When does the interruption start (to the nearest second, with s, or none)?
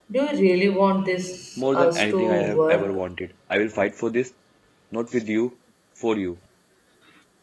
2 s